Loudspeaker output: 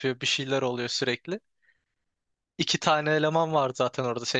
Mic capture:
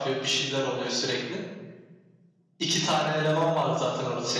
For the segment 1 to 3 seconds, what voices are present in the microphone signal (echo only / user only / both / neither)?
echo only